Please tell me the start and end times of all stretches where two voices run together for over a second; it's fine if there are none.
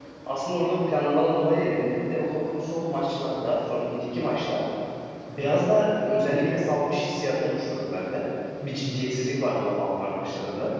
none

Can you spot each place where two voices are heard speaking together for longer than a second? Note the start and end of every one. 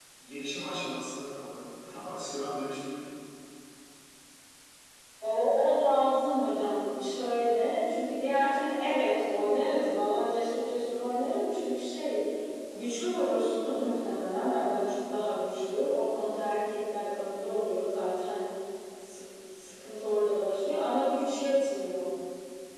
none

